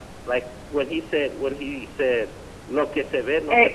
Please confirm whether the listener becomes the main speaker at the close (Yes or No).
Yes